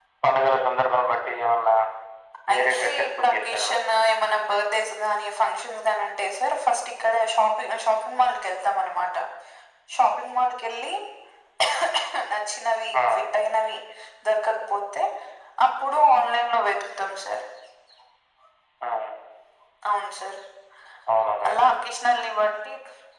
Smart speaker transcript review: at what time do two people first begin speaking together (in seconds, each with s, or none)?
2.5 s